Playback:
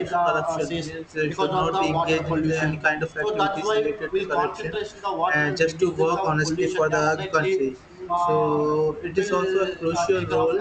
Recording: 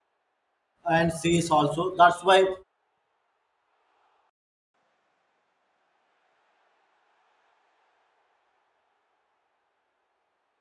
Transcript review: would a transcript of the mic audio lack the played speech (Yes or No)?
Yes